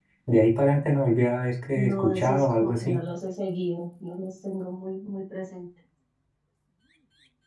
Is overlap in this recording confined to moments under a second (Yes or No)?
No